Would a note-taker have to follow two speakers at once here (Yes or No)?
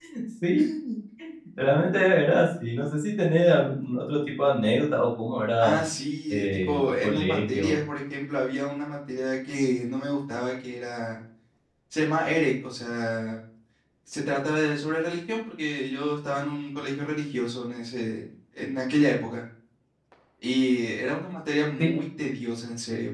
Yes